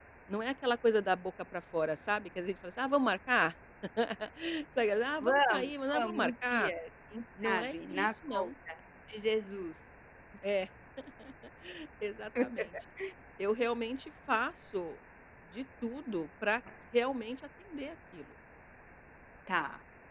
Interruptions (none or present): present